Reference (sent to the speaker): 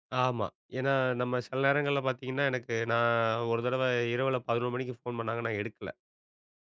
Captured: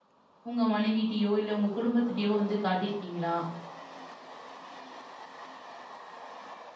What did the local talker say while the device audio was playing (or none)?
உங்க மனைவிட்டயோ, இல்ல உங்க குடும்பத்திட்டயோ வந்து காட்டியிருக்கீங்களா?